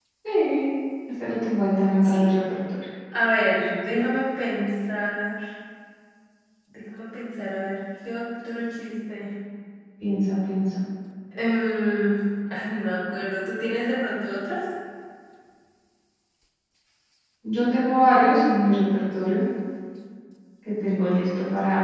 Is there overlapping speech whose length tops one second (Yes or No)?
No